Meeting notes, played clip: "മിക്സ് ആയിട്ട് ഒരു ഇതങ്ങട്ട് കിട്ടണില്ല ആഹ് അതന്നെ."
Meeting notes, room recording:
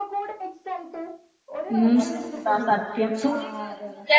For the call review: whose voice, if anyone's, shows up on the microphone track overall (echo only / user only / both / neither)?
both